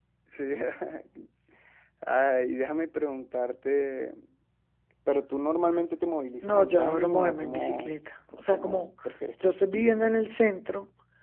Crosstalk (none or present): present